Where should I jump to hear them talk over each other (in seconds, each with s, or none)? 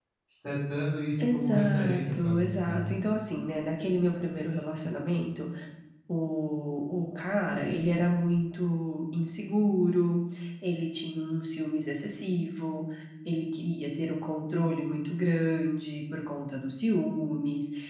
1.2 s